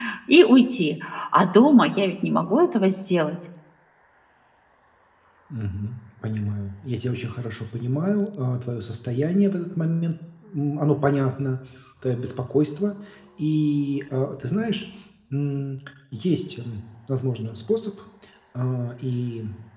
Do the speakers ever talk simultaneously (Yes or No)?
No